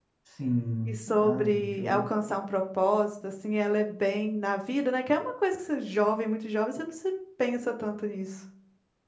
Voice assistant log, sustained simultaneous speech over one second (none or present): present